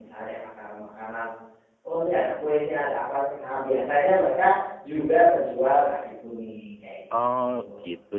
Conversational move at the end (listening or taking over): taking over